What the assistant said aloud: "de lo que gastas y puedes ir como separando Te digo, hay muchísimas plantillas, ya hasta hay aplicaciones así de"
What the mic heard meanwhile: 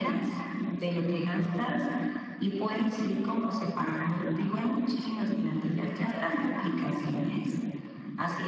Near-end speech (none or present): none